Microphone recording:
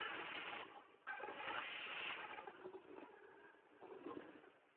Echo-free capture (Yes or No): Yes